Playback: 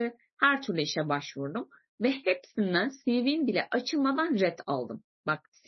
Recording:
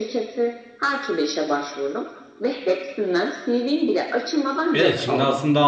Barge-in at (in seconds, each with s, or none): 4.7 s